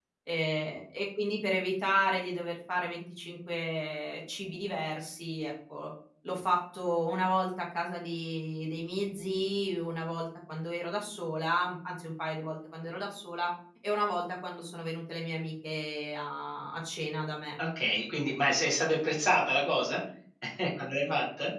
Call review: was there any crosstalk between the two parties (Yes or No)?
No